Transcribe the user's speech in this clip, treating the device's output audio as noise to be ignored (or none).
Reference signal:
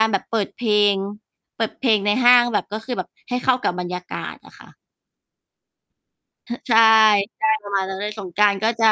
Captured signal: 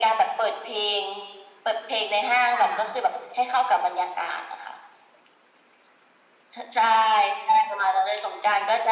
ค่ะ